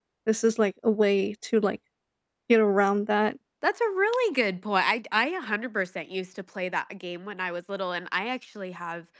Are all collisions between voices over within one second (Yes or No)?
Yes